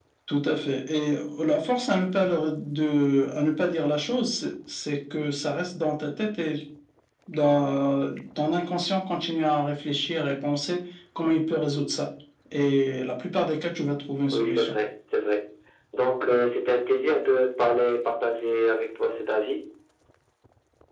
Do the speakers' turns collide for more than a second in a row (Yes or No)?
No